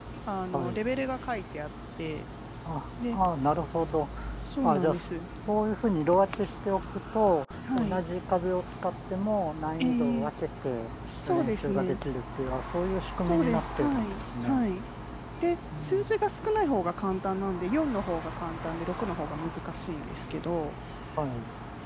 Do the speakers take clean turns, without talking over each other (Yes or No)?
No